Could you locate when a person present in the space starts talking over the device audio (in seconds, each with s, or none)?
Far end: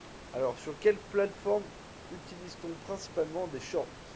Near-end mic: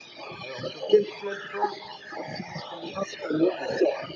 none